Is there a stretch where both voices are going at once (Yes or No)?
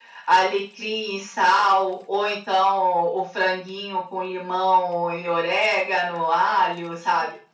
No